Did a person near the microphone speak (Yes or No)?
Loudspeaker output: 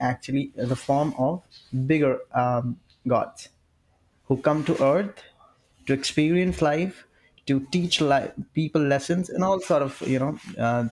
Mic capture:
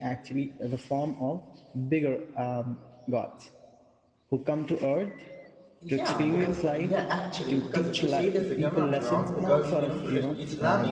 Yes